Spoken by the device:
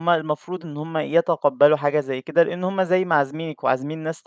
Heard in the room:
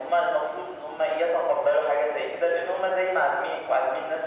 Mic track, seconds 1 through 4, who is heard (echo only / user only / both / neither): echo only